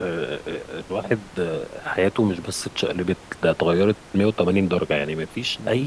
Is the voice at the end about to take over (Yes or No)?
No